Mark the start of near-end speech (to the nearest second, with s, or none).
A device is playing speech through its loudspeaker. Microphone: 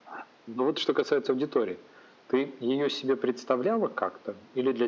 none